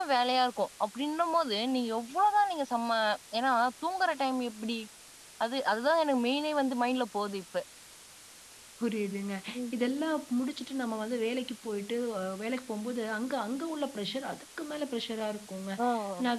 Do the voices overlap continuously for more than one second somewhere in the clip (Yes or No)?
No